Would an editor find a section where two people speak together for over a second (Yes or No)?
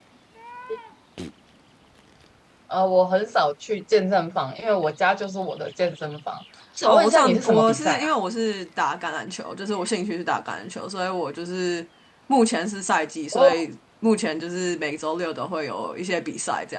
Yes